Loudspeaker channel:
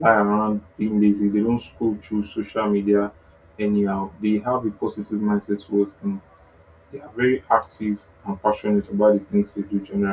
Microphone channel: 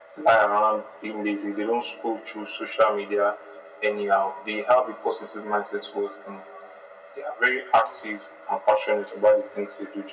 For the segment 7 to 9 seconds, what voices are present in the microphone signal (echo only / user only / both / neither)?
echo only